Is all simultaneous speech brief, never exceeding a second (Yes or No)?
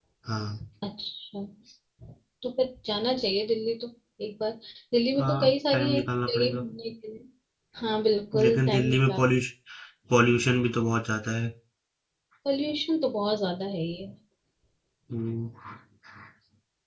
No